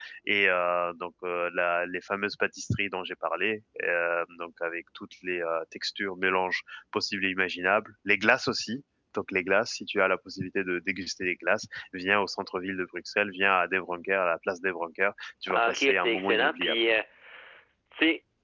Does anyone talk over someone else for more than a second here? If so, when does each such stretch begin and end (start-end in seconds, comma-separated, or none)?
15.5-16.8